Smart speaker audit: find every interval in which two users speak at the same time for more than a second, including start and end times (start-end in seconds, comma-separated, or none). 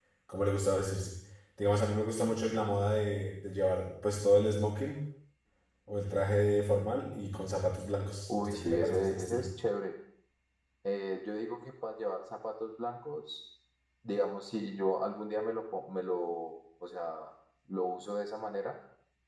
8.3-9.5